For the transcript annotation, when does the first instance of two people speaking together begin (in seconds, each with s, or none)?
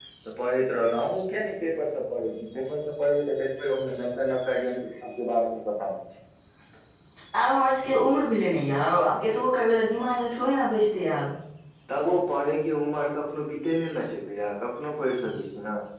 none